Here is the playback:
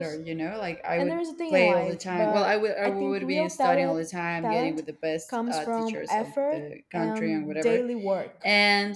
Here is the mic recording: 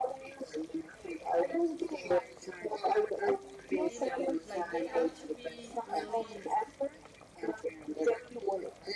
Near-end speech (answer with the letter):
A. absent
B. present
B